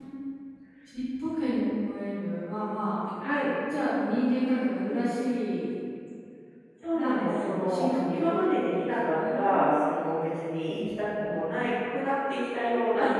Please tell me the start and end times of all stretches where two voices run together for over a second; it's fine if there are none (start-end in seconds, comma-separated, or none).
6.9-9.7